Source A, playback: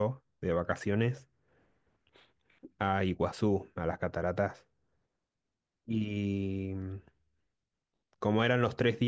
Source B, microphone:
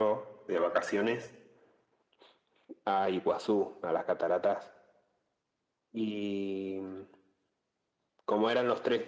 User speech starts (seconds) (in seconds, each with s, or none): none